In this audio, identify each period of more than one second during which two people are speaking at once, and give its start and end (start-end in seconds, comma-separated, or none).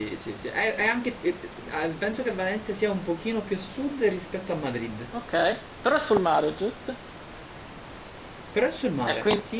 none